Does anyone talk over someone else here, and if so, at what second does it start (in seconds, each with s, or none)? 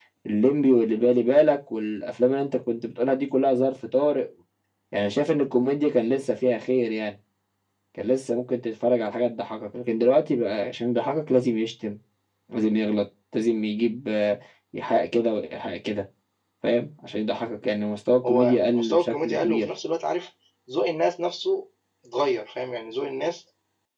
18.2 s